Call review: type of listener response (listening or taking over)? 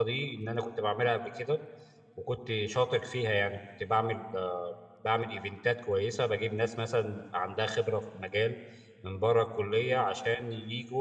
listening